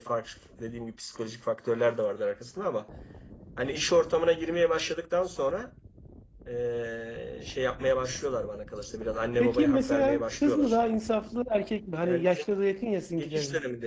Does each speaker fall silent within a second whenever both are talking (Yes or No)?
No